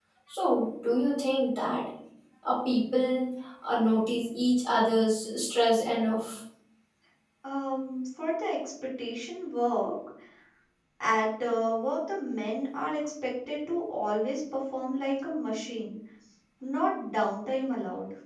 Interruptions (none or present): none